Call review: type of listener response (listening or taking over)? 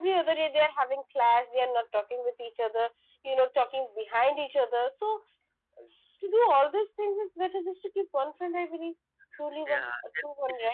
taking over